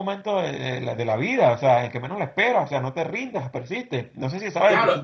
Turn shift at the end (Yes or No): Yes